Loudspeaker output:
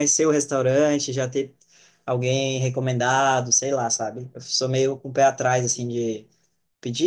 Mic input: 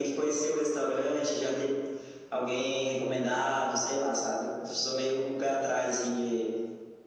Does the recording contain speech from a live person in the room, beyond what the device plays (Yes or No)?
No